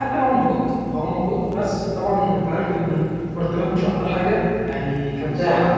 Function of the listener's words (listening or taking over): taking over